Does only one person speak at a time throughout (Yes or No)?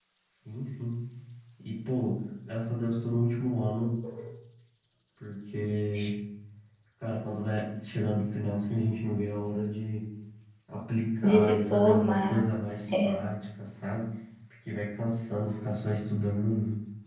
No